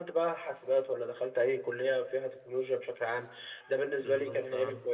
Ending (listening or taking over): listening